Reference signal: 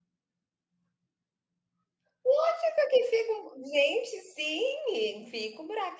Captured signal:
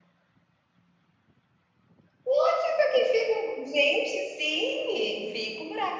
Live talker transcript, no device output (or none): none